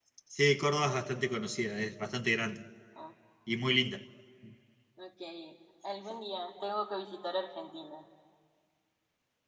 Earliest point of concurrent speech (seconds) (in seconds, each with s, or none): none